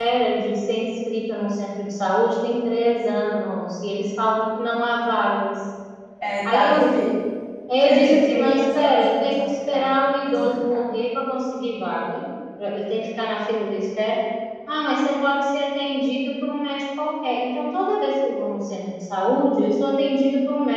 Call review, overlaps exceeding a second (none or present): present